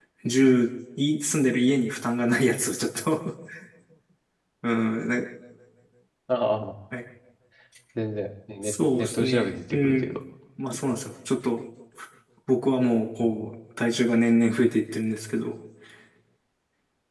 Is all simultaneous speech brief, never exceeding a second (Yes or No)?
No